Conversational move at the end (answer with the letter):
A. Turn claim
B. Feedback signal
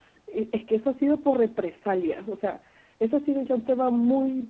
B